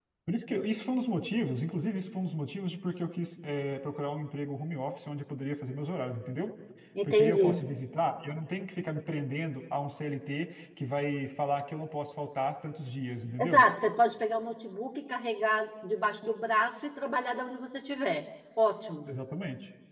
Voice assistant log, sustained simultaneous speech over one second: none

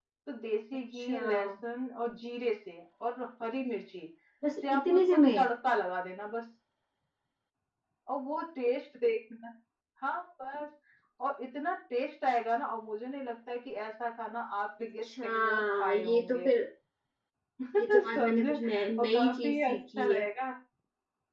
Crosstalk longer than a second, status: present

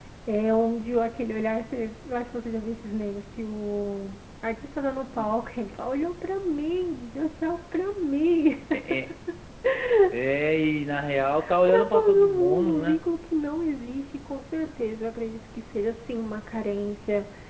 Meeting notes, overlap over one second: present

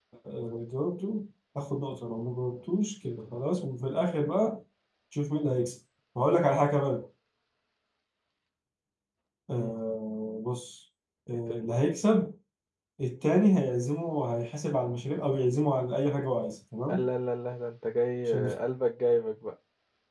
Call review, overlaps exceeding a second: none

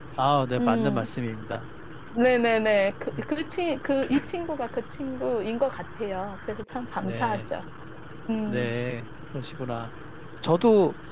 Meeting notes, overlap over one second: none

